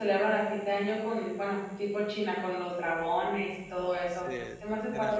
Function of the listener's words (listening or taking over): taking over